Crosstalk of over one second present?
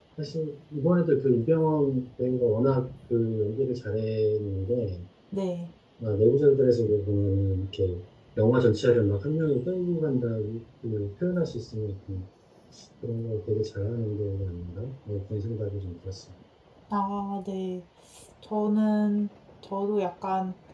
No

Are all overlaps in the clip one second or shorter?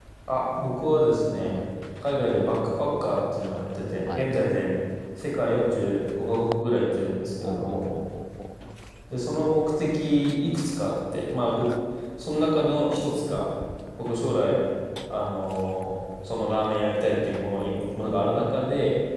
Yes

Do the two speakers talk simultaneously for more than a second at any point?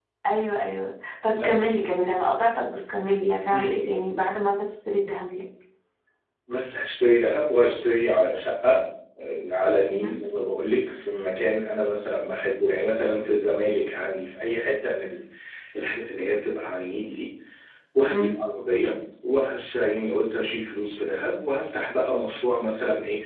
No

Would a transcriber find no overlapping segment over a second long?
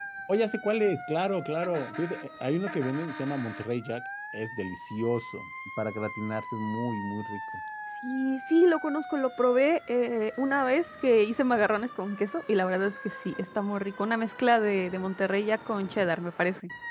Yes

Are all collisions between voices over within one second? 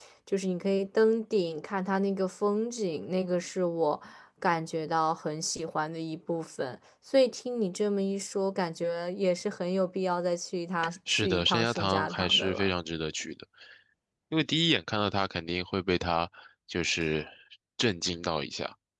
No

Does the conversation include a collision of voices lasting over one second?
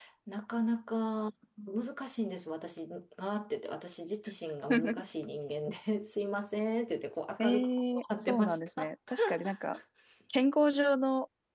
Yes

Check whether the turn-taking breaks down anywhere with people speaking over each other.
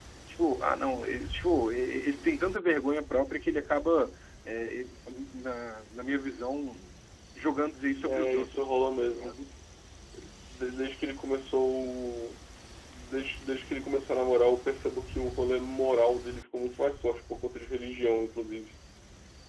Yes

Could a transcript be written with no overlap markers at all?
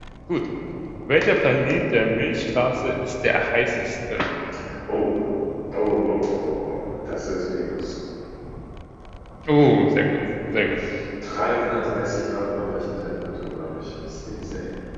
Yes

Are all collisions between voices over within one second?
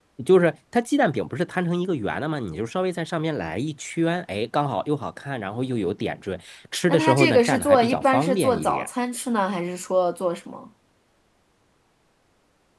No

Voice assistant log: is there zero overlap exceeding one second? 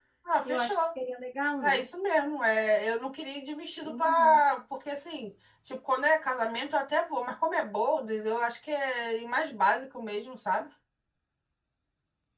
Yes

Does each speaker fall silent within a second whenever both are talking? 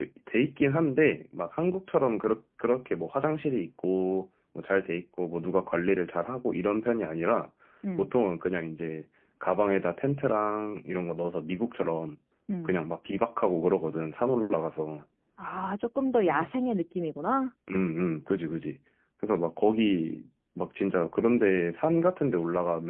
Yes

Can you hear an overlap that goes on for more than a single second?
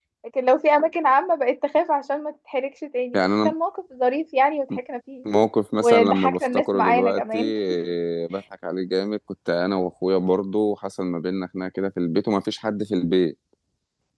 Yes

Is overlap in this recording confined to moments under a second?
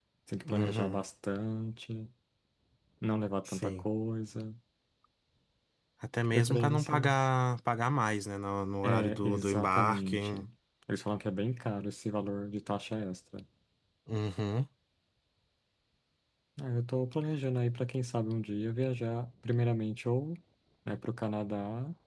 No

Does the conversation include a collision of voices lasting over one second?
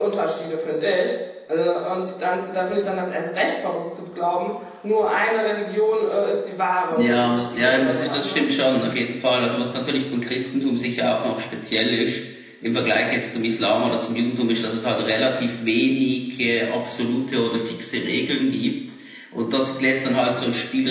Yes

